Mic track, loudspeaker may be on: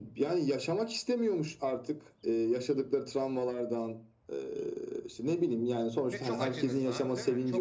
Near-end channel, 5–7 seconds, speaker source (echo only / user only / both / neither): both